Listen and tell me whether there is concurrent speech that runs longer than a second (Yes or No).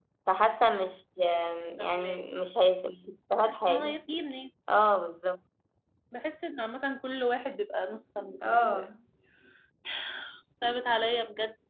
No